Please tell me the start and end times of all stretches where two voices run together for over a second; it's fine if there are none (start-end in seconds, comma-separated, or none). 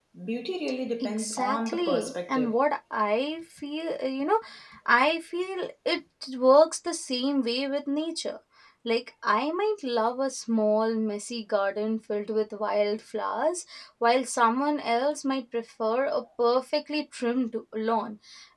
1.0-2.6